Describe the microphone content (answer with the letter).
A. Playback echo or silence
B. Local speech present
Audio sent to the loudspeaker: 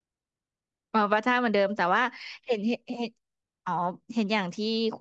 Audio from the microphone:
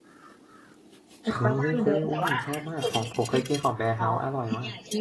B